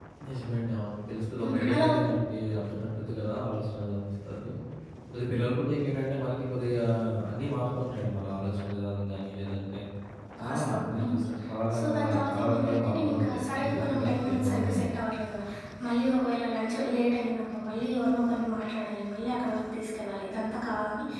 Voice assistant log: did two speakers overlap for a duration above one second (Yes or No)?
Yes